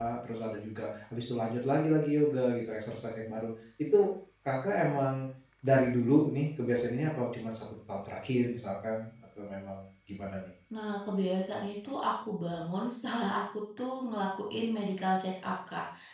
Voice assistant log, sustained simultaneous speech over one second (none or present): none